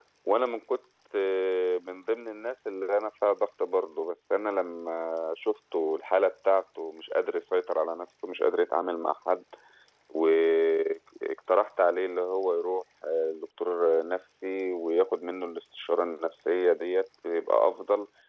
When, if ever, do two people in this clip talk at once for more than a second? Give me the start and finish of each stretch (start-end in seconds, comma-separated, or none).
none